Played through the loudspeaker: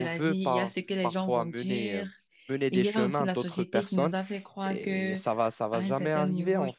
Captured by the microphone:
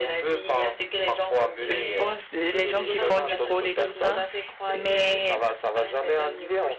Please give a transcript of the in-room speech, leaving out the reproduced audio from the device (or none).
je pense, les gens qui font du code et tout ça. Mais